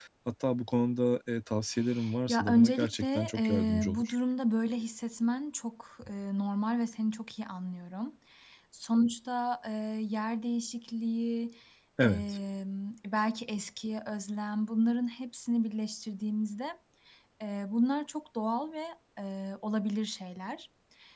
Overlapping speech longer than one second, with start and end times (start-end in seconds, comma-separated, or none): 2.3-4.2